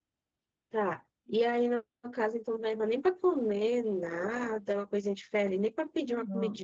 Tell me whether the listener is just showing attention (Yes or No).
No